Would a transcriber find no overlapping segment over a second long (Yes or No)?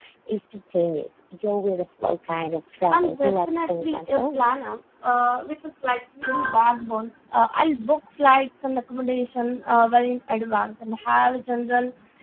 No